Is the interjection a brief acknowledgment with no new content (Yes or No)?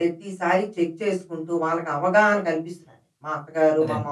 Yes